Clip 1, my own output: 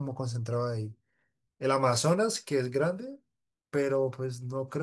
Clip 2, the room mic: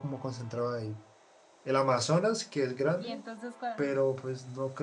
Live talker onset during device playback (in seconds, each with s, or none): 3.0 s